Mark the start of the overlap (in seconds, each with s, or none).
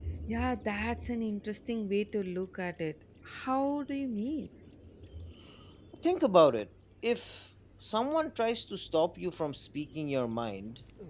none